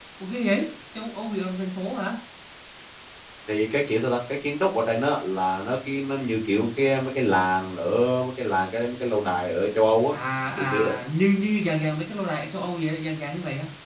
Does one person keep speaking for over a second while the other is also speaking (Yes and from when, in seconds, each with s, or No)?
No